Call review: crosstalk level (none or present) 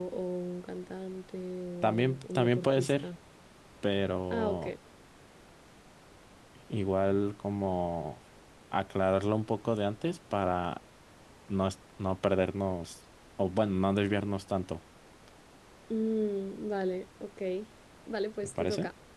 present